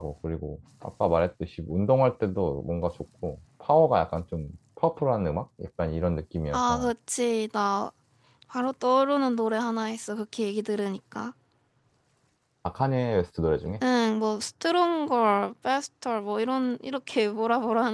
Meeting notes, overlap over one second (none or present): none